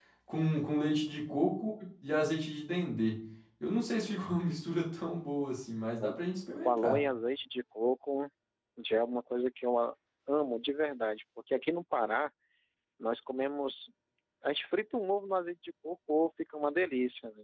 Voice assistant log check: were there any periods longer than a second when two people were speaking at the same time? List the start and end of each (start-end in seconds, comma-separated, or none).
none